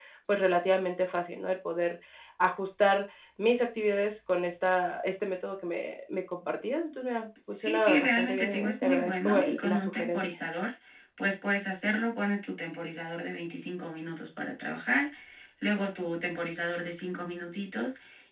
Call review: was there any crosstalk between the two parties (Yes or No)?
Yes